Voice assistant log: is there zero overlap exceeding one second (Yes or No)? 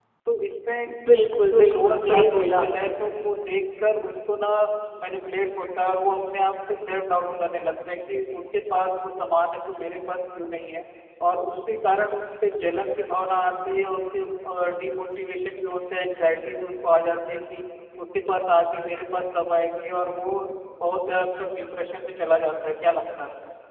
No